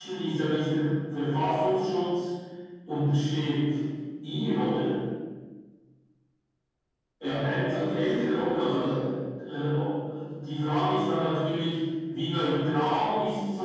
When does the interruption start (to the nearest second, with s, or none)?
7 s